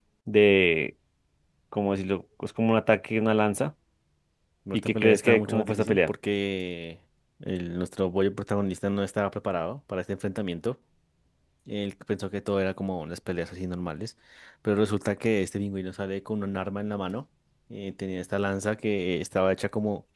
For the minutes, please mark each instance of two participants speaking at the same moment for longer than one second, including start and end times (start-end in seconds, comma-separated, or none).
4.7-6.1